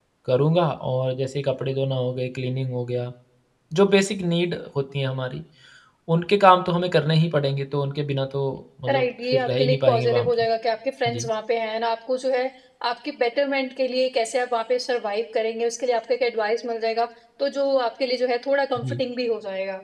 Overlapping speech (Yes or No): Yes